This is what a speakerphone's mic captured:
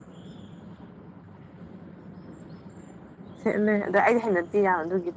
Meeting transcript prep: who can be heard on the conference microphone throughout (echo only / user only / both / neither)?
user only